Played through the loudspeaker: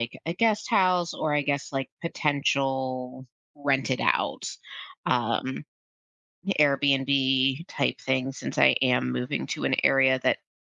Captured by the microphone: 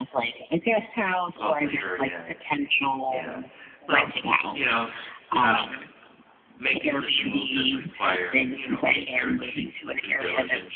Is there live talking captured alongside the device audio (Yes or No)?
Yes